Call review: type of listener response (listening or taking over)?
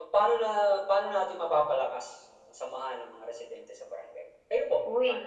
taking over